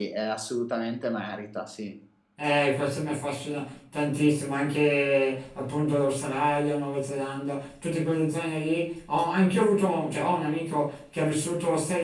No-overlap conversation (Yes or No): Yes